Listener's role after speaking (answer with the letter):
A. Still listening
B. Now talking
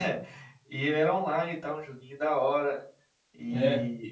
A